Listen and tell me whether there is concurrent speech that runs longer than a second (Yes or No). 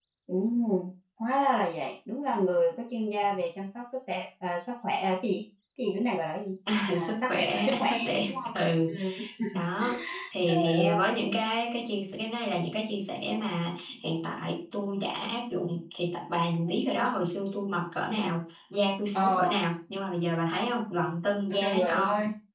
Yes